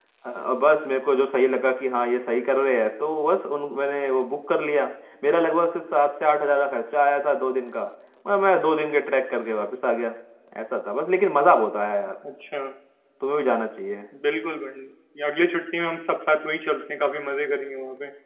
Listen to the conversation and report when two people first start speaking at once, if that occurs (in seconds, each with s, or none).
none